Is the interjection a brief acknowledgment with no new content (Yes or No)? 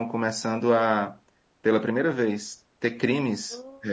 Yes